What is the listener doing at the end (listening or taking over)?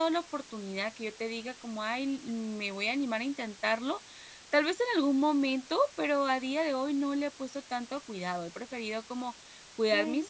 listening